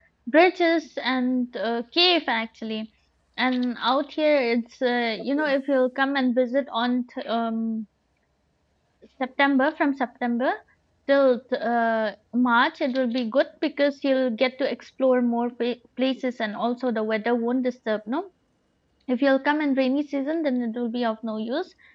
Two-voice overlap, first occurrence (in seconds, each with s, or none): none